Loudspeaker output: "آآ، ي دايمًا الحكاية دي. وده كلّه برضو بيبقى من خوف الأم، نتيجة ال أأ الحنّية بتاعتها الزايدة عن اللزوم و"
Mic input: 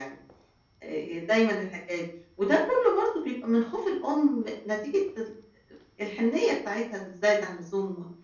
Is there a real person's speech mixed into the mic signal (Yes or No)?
No